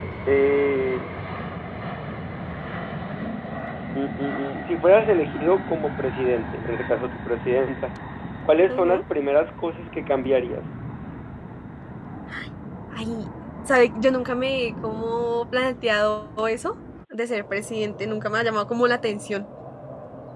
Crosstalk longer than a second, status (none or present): none